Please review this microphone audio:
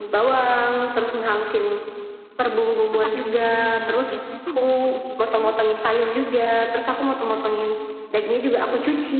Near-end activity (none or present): present